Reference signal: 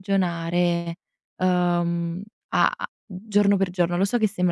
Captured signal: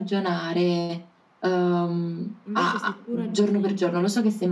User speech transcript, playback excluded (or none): Invece se tu ragioni